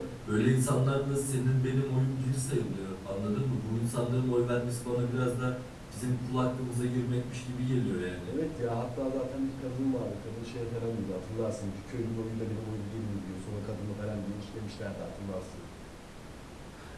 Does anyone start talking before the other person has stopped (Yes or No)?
No